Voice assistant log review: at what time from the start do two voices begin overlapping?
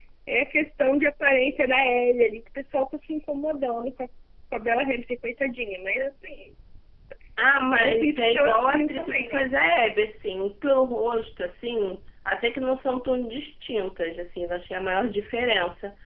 8 s

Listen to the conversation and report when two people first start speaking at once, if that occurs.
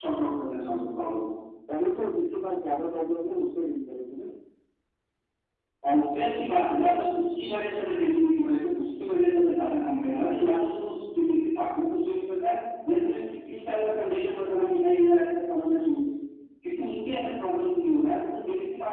none

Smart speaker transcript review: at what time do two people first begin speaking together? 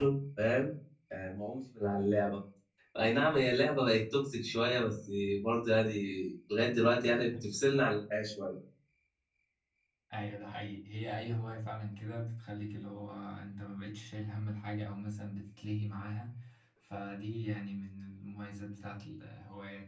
none

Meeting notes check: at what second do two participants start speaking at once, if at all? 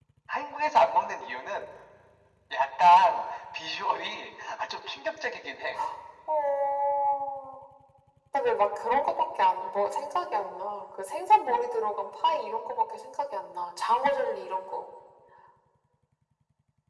none

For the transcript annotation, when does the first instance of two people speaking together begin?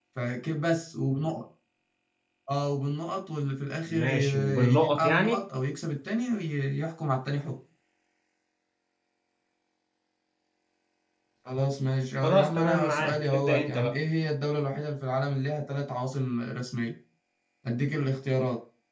4 s

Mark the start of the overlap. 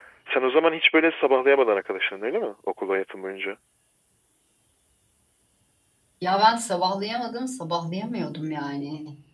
none

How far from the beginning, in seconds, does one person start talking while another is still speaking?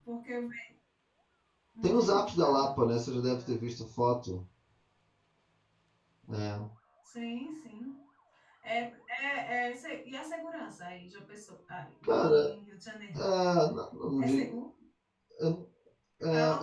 2 s

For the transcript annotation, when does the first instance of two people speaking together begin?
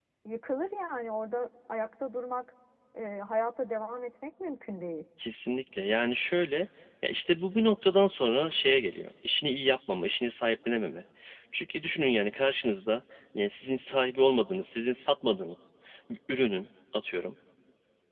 none

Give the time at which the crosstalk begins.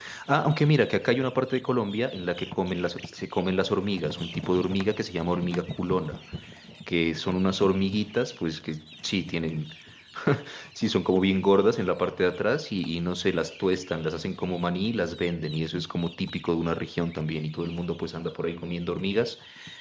none

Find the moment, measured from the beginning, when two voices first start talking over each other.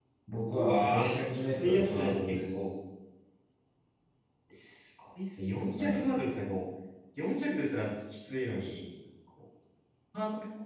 1 s

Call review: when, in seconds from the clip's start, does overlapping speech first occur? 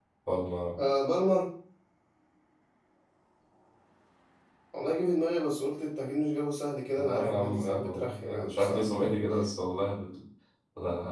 7 s

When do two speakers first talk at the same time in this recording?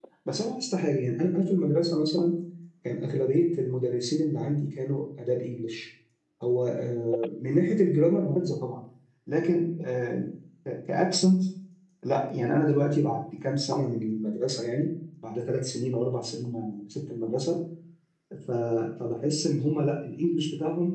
none

